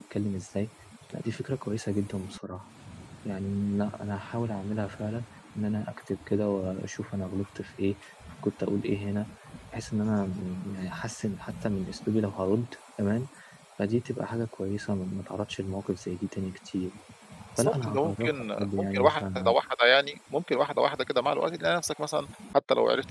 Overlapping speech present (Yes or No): Yes